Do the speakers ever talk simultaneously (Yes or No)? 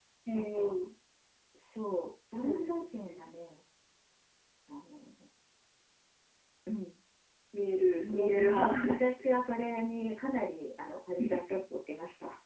Yes